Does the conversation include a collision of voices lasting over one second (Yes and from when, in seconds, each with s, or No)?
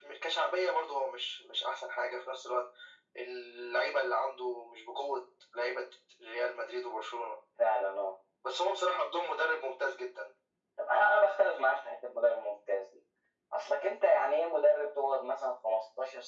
No